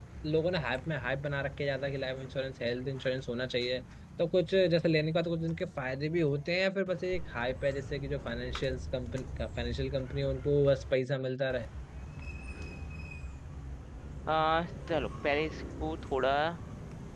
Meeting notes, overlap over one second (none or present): none